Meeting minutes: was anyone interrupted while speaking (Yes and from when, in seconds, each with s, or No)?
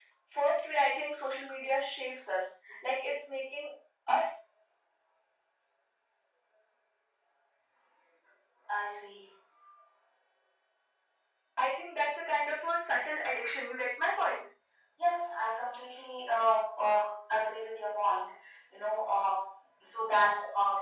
No